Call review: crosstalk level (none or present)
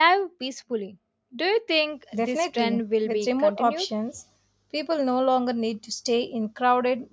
present